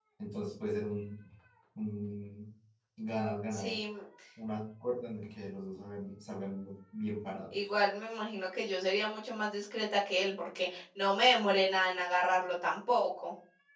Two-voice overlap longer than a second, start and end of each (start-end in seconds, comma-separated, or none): none